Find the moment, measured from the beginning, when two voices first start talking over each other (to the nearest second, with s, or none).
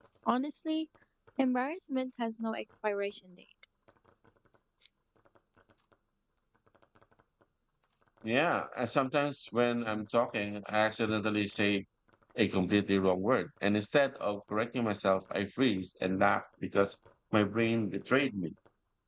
none